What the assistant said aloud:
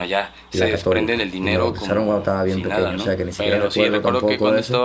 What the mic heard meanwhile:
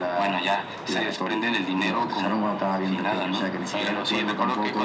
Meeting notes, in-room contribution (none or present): none